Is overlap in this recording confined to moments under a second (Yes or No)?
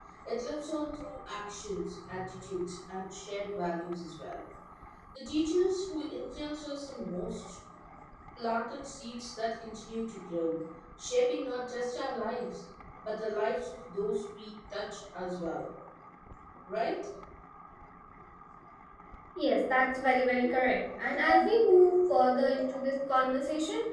Yes